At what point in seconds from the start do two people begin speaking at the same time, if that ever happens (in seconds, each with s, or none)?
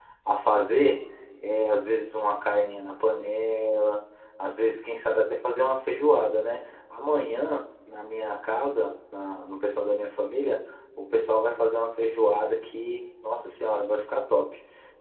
none